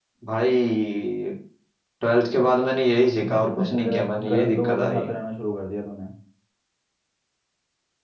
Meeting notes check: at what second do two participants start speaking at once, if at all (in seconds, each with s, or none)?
3.2 s